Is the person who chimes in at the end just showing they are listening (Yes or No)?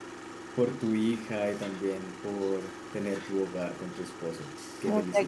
No